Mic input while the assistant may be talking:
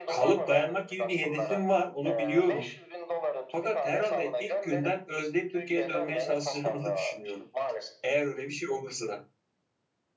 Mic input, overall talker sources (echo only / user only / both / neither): both